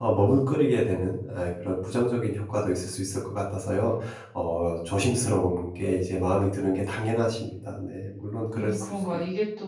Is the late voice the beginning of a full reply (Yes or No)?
Yes